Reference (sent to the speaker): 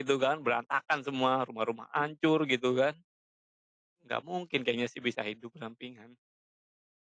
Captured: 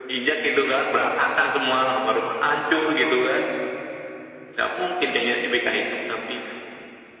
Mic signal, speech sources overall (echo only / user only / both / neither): echo only